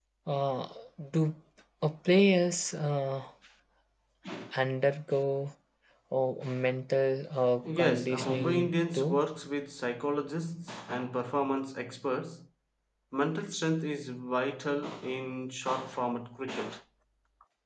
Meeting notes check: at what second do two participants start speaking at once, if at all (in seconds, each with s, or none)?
7.6 s